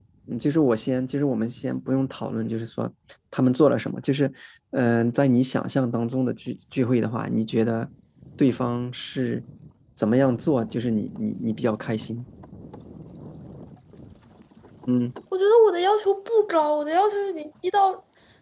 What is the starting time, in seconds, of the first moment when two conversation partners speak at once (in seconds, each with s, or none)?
none